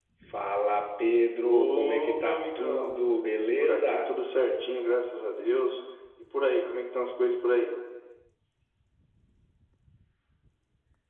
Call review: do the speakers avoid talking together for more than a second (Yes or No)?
No